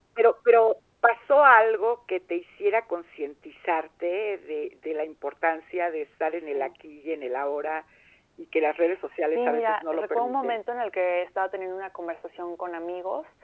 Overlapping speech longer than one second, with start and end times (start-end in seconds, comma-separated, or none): 9.3-10.6